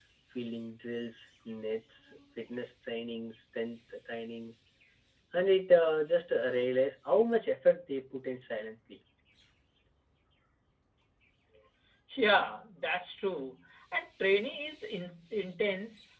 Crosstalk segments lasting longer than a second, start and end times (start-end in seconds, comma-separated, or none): none